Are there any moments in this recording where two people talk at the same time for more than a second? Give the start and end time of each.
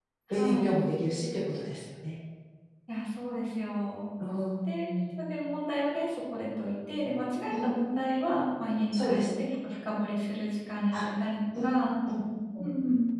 none

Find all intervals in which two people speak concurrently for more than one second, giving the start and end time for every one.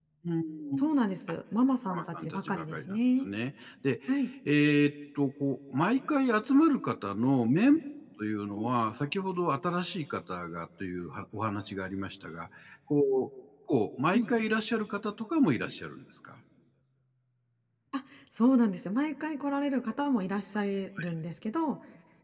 1.9-3.3

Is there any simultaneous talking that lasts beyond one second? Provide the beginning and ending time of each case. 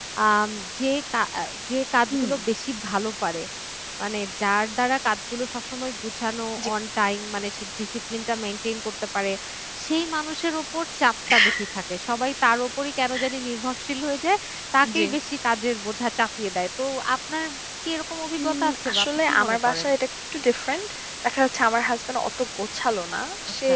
18.4-19.8

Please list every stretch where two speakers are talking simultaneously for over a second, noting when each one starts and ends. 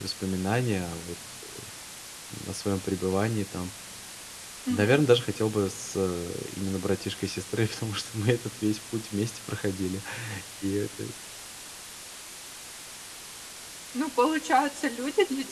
none

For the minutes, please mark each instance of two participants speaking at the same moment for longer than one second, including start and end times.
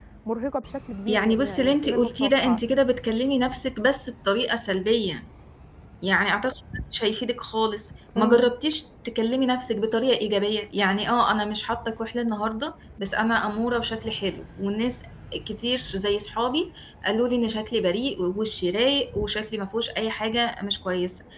1.1-2.6

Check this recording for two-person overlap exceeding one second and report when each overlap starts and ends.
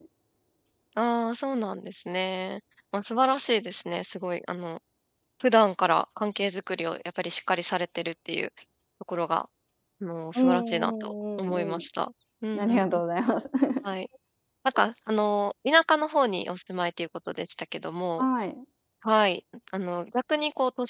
10.3-11.8

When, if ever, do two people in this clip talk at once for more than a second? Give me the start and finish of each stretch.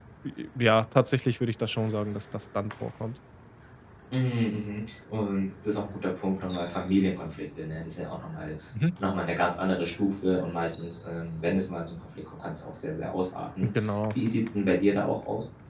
none

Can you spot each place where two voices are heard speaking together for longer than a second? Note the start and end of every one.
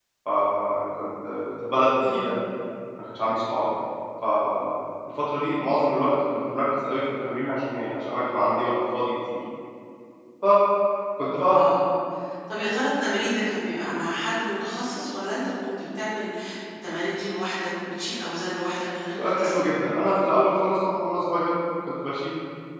none

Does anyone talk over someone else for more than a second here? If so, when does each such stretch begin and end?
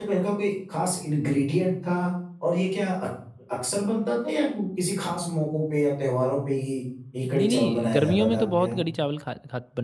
7.3-8.8

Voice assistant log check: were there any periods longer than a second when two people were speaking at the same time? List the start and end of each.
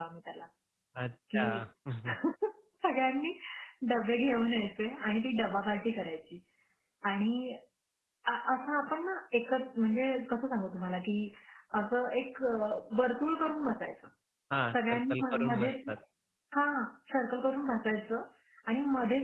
14.7-15.9

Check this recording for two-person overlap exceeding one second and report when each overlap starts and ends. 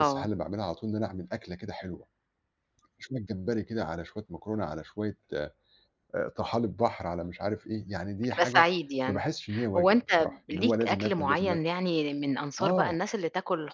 9.8-11.6

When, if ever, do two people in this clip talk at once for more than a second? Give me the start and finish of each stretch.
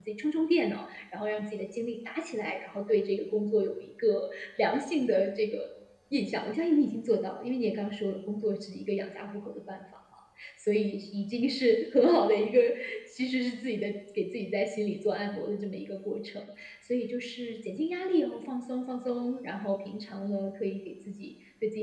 none

